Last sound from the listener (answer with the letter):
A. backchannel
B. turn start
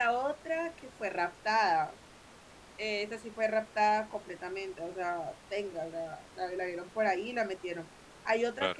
A